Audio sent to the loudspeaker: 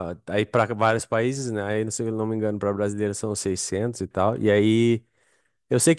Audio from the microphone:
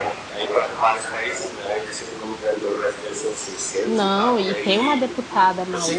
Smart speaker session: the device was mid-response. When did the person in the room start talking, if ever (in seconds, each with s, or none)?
3.8 s